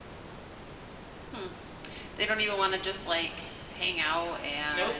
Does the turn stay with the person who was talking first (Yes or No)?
No